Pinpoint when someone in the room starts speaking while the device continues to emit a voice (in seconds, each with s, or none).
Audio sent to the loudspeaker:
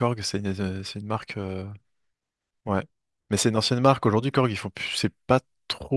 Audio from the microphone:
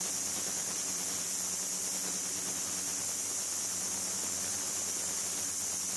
none